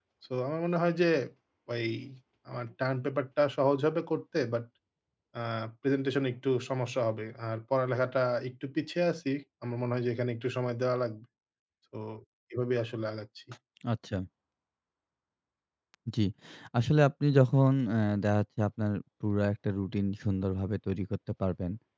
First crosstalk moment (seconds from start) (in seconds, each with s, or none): none